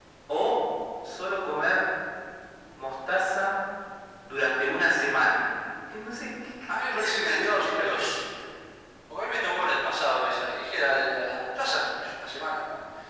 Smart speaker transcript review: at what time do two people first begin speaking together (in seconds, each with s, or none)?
6.7 s